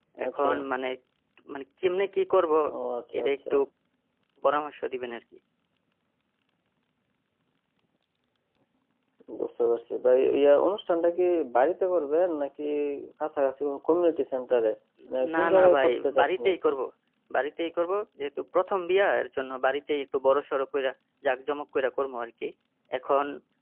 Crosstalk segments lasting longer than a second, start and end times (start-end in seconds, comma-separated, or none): 15.4-16.7